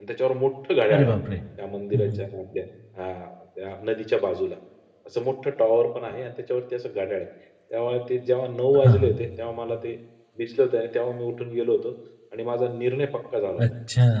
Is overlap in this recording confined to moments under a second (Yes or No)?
Yes